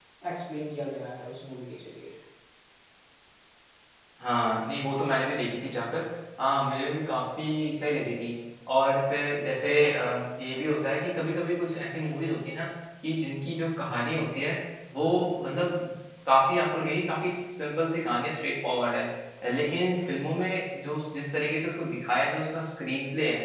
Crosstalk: none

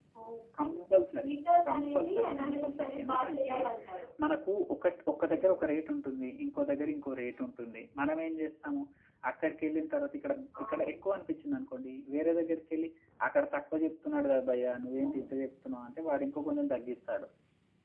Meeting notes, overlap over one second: present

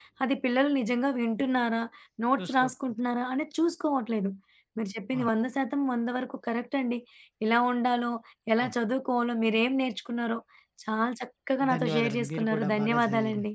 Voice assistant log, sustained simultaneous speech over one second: present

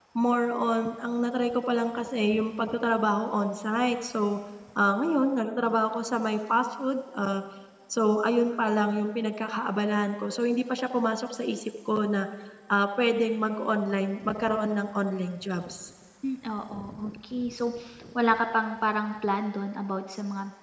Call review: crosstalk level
none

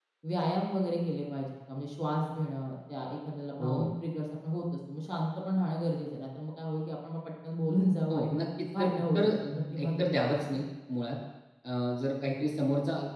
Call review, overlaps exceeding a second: present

